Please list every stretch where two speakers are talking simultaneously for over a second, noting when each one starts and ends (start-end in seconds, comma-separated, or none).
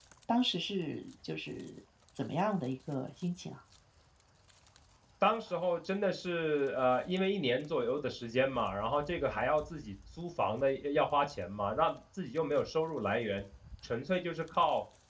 none